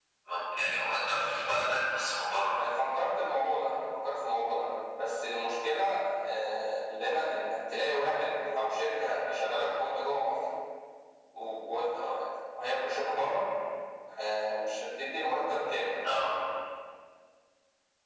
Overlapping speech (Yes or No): No